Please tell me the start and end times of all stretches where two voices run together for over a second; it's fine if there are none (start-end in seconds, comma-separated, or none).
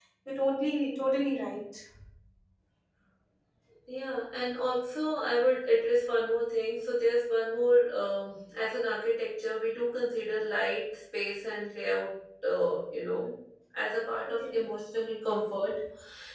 none